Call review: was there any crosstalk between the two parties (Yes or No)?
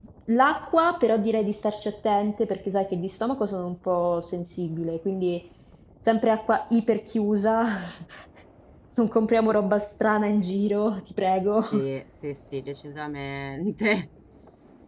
No